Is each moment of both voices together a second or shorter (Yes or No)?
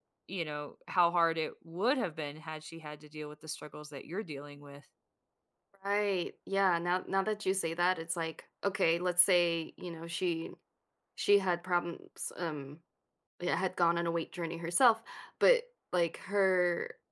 Yes